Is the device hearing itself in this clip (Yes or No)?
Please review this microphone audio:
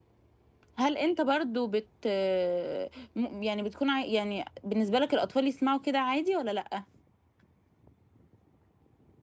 No